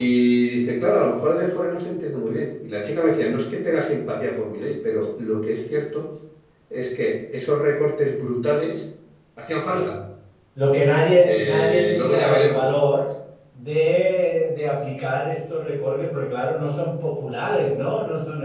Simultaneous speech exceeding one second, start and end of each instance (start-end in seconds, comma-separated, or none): 11.2-12.7